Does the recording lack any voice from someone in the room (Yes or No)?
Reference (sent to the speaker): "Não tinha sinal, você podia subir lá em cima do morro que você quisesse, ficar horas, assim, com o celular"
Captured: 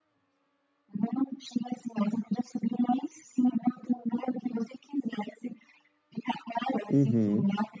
No